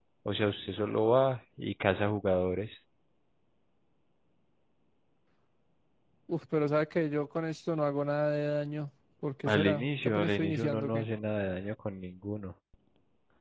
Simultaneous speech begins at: 9.5 s

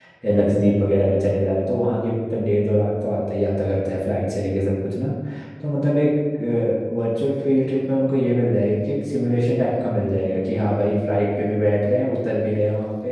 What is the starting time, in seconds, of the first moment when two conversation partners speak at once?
none

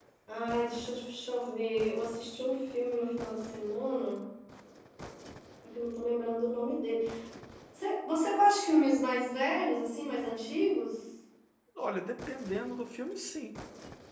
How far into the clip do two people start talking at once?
none

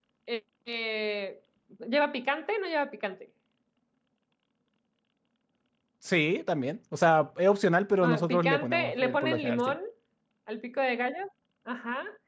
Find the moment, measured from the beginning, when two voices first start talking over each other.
8.0 s

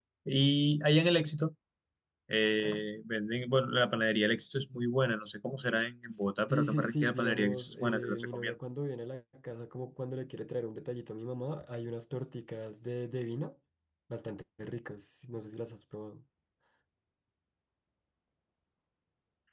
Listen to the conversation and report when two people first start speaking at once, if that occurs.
6.5 s

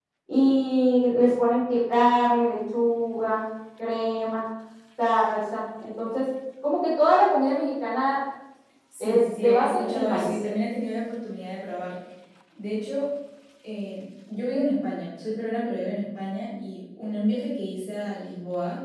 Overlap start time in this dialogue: 9.0 s

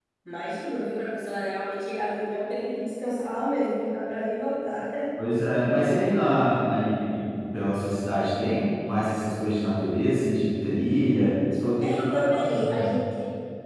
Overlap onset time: 11.8 s

